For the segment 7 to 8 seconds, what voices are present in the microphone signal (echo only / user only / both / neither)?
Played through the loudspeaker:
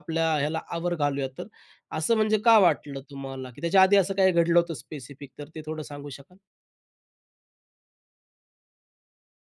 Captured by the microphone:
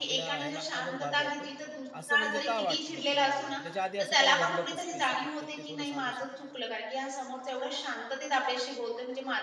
user only